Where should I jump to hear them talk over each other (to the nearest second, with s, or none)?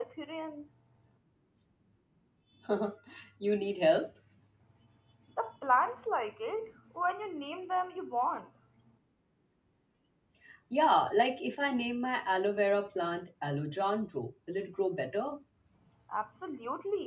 none